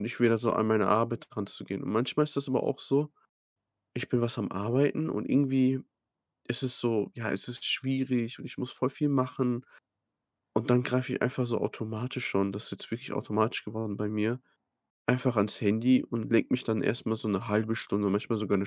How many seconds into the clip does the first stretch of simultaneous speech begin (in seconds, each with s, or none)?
none